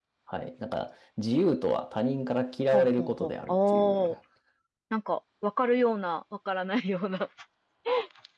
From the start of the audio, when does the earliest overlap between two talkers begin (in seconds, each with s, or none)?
2.7 s